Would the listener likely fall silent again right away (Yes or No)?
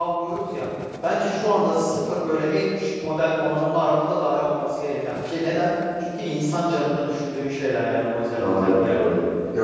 No